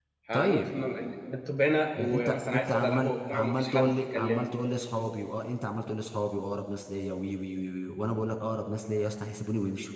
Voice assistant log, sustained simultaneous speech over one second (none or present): present